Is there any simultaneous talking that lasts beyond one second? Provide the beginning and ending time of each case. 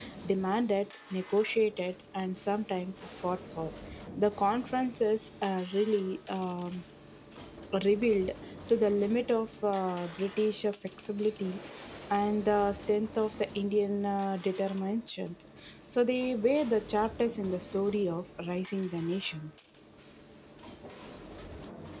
none

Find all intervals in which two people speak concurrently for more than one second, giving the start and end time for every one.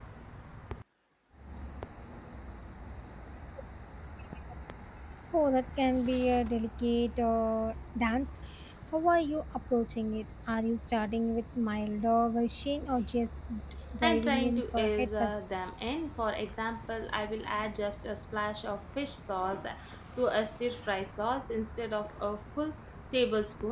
14.0-15.5

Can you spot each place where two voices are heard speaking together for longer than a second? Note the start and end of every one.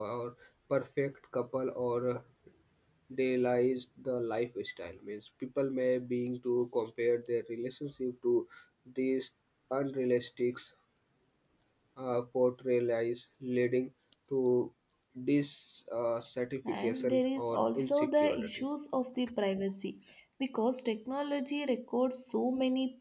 16.7-18.5

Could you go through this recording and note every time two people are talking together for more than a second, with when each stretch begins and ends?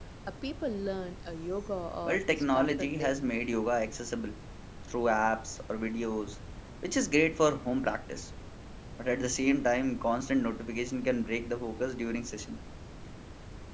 2.0-3.3

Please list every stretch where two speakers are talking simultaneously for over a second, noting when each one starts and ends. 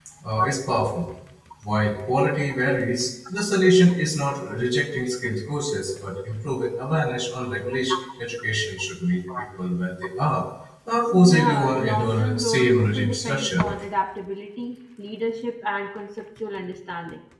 11.1-13.7

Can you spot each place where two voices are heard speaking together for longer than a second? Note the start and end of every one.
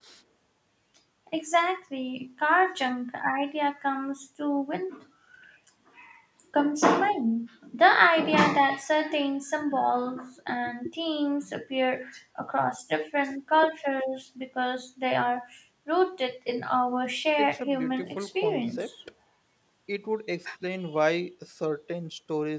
17.4-18.9

